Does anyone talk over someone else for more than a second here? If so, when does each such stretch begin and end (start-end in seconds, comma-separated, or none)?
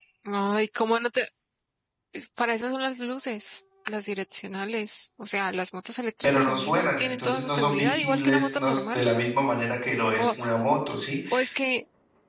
6.2-9.0